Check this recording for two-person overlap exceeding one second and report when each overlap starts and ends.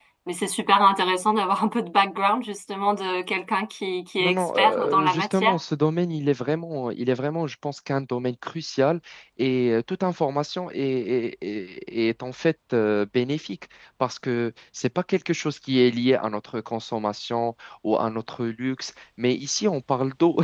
4.2-5.6

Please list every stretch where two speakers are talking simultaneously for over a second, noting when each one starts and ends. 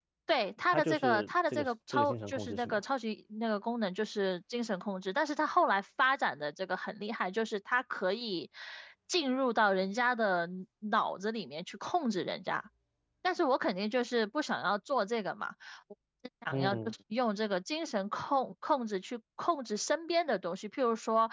0.7-2.8

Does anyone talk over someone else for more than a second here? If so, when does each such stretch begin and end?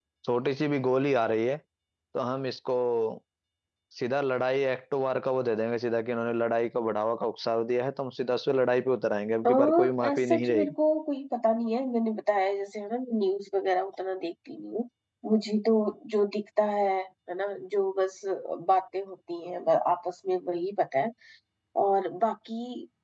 9.5-10.7

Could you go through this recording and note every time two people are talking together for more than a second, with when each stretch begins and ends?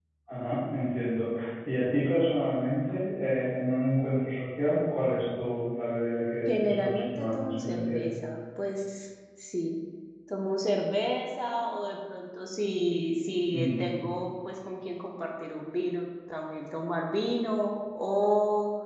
6.5-8.1

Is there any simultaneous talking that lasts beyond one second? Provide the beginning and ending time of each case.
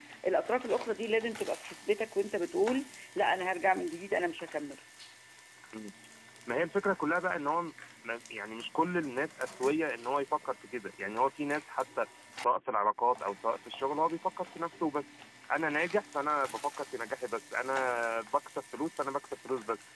none

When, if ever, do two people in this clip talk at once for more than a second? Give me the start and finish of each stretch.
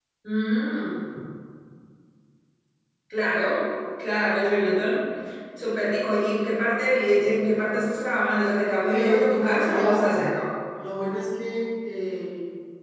8.9-10.3

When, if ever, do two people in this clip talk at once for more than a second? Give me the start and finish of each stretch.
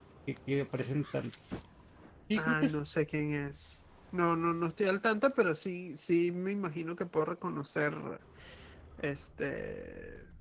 none

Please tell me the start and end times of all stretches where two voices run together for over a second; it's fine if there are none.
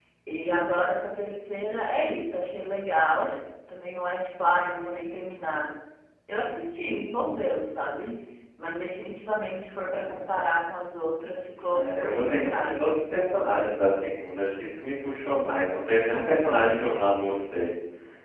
11.7-13.0

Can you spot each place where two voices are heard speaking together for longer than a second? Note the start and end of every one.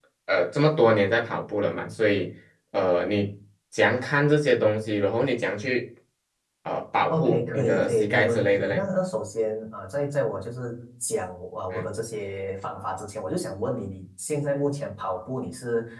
7.1-8.8

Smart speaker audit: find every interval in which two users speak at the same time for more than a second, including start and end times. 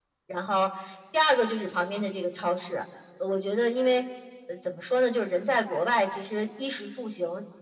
none

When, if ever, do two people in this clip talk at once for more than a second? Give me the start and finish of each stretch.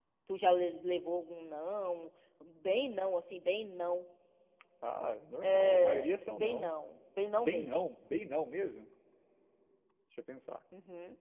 5.4-6.7

